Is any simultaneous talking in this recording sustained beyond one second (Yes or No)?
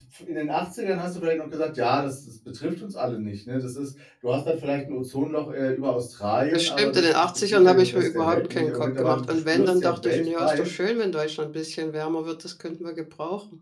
Yes